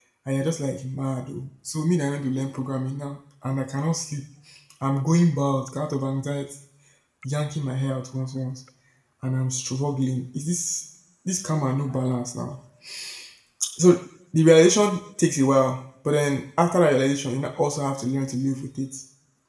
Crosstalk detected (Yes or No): No